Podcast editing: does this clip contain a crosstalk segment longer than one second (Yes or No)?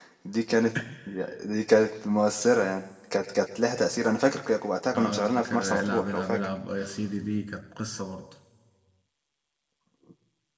Yes